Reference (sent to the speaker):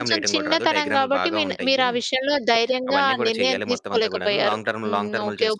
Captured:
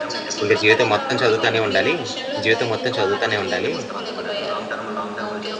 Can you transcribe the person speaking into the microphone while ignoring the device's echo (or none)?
ఇంక జీవితం మొత్తం చదువుతానే ఉండాలి. జీవితం మొత్తం చదువుతానే ఉండాలి.